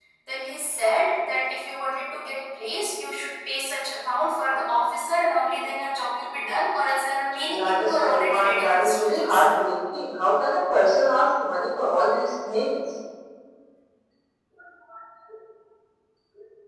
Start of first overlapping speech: 7.4 s

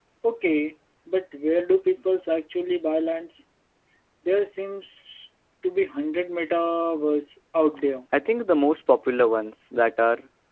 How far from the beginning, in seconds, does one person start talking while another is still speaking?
none

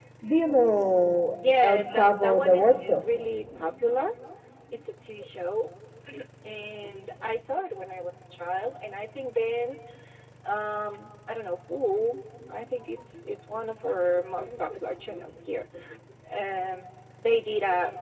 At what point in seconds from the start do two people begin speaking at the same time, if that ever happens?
1.6 s

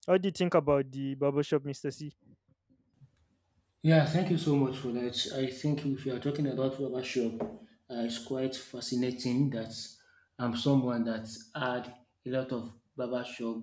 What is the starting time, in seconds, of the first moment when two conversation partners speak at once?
none

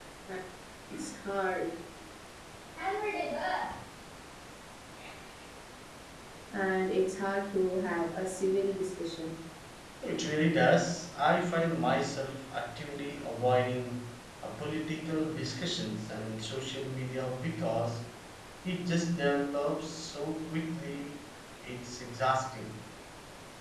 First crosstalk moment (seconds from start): none

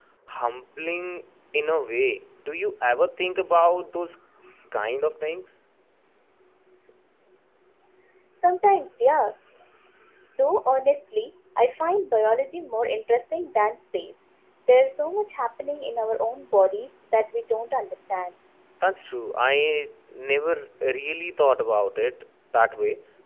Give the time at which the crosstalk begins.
none

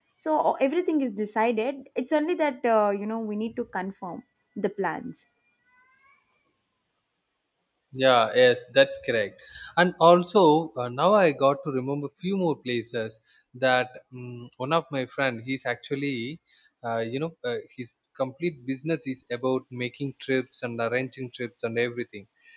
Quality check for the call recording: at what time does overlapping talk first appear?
none

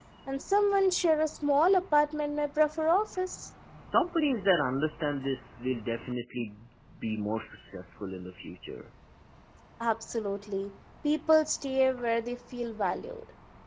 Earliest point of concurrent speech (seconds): none

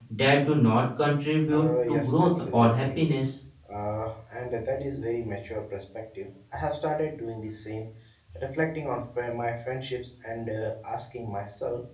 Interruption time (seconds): 1.5 s

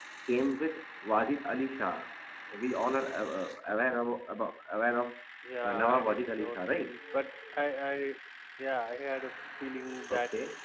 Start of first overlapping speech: 5.6 s

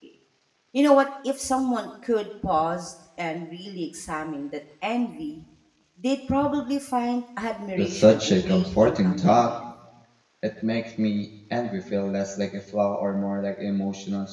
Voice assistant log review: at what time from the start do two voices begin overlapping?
7.8 s

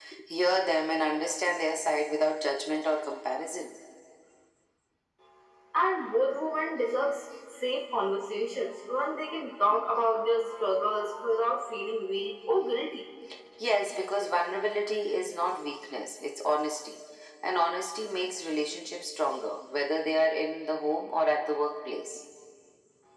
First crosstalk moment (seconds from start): none

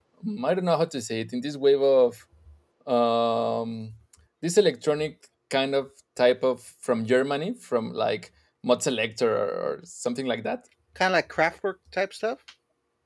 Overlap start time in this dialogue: none

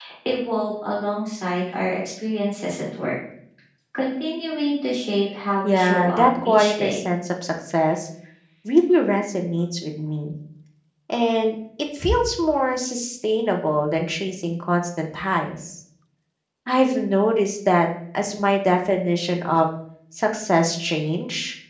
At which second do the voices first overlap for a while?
5.6 s

